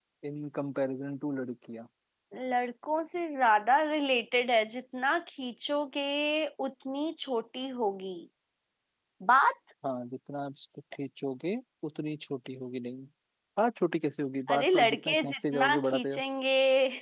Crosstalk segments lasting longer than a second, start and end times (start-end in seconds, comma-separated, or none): 14.5-16.2